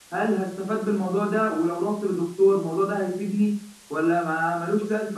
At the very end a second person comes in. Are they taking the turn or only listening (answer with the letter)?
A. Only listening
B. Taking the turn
A